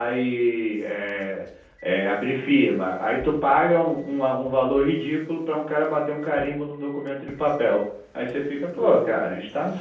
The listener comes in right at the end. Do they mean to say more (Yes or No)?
No